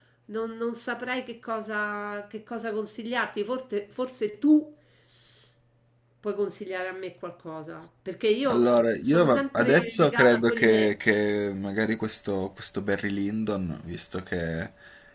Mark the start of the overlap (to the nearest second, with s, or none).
8 s